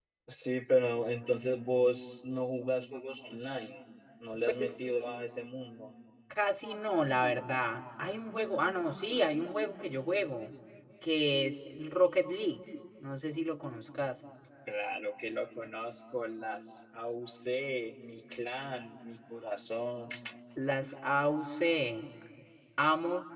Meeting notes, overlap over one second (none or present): none